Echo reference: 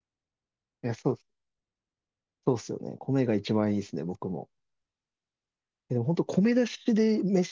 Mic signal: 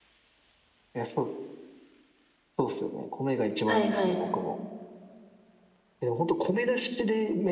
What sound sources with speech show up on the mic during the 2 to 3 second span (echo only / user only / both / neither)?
echo only